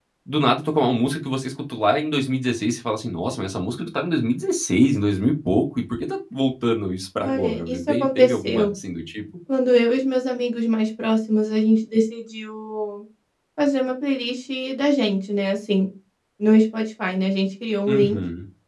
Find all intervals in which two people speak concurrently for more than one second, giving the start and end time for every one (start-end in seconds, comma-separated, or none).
7.2-8.7